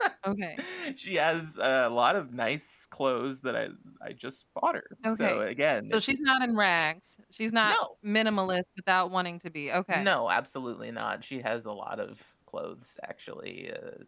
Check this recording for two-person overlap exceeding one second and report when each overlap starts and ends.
none

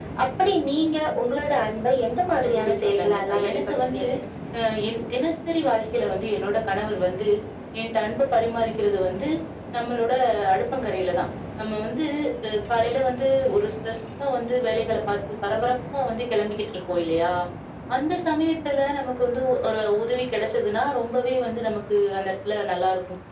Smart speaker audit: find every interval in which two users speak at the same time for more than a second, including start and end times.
2.4-4.0

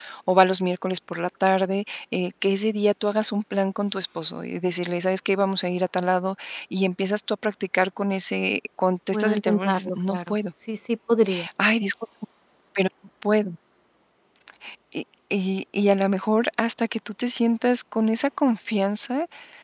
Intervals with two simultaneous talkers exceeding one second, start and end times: 9.1-10.3

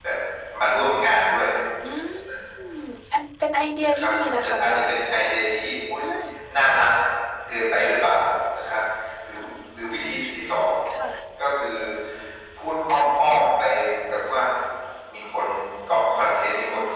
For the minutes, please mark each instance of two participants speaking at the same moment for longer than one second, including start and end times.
3.9-5.1

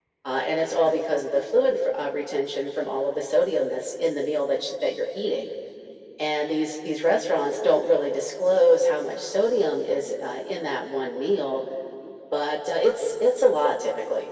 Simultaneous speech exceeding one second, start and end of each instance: none

